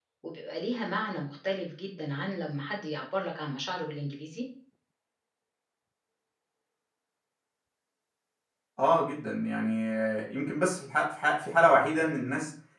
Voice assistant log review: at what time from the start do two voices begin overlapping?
none

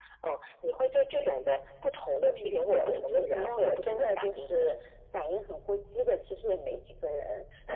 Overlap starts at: 2.2 s

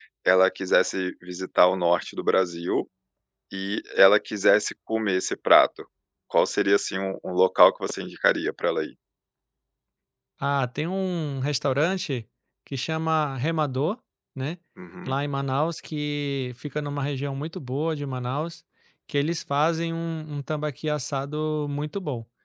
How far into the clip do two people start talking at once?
none

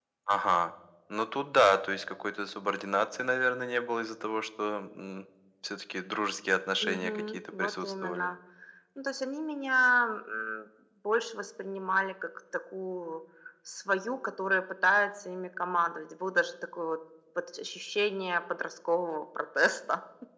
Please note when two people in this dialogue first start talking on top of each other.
6.8 s

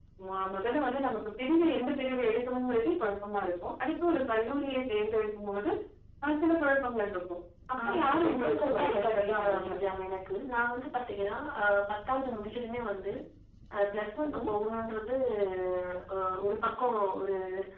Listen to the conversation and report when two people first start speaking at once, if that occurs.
7.8 s

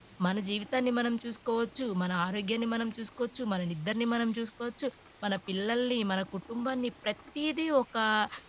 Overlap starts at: none

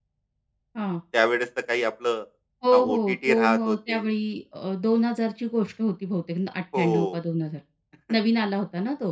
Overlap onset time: 2.7 s

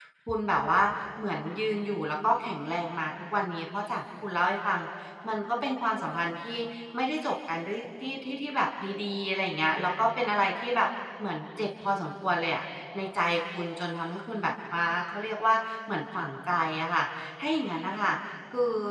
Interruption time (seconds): none

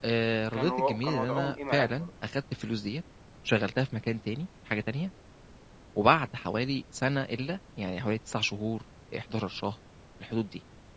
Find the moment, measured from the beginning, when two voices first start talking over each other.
0.5 s

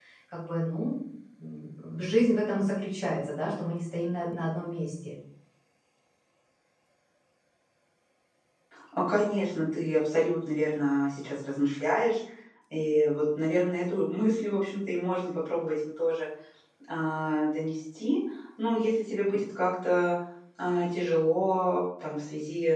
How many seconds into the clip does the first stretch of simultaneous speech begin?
none

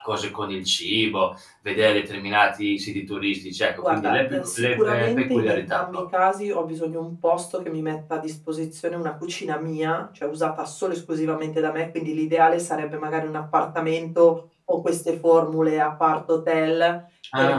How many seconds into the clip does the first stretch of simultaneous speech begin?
3.8 s

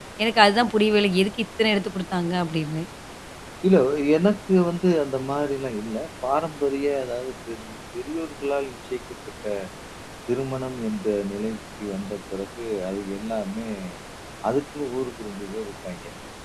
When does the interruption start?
none

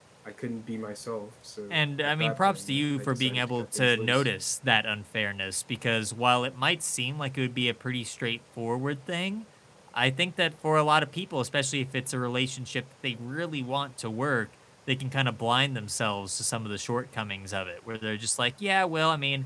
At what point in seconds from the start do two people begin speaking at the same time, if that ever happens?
1.7 s

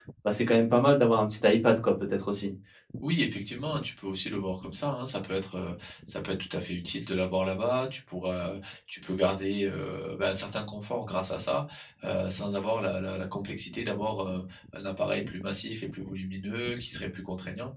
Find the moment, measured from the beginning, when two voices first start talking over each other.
none

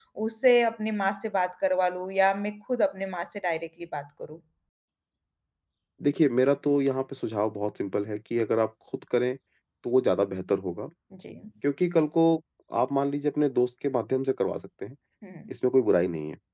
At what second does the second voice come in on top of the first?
none

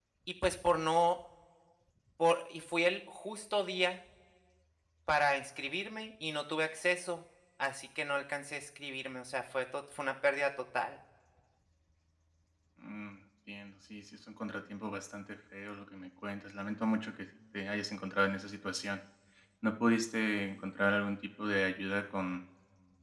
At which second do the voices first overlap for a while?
none

